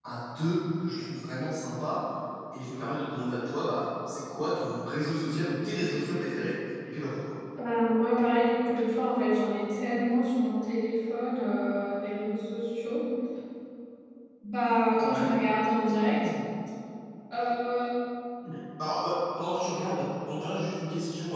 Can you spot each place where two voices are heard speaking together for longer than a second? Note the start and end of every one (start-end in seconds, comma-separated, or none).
none